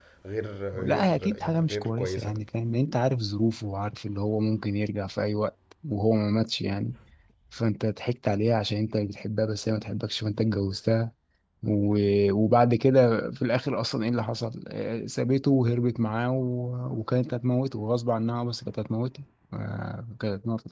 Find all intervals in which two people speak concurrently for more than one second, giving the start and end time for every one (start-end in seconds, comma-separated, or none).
0.8-2.4